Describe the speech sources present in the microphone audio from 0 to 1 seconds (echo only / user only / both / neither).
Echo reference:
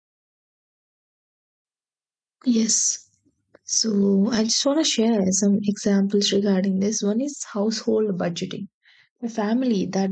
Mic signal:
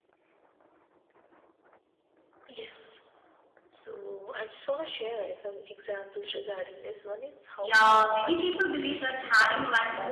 neither